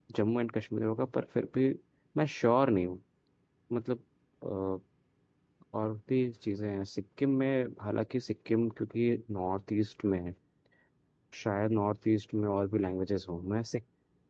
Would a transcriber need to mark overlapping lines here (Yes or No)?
No